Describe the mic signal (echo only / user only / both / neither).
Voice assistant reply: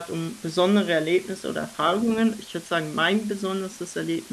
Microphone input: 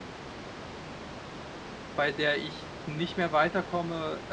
user only